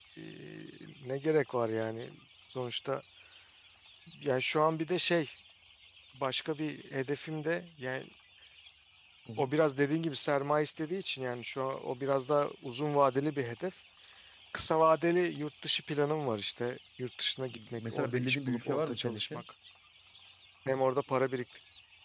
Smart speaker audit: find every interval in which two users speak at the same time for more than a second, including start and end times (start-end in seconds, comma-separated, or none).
17.8-19.4